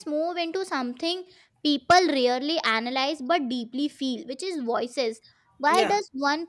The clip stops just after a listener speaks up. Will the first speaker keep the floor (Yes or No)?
Yes